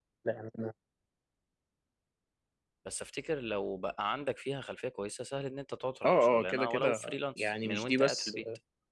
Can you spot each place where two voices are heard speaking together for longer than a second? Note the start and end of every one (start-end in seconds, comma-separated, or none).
6.0-8.4